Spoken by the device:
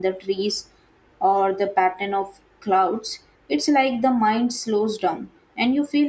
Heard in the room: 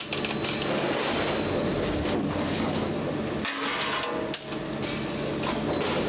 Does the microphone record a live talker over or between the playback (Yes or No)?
No